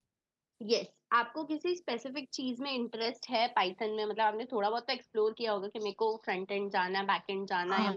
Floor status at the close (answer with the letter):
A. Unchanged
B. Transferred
B